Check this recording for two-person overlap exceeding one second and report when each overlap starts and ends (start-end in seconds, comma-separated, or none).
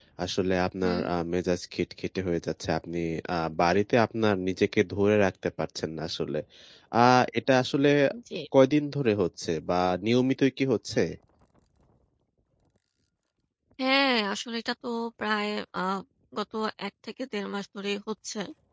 none